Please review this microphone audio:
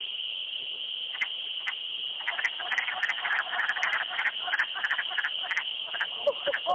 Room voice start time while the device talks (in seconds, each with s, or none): none